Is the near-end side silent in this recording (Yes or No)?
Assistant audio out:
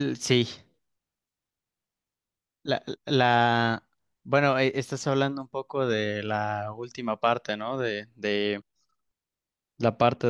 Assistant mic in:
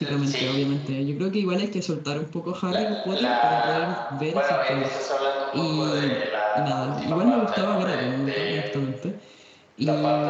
No